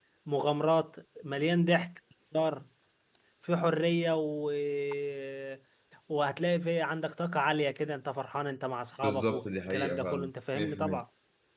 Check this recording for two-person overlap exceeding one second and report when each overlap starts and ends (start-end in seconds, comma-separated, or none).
9.0-11.0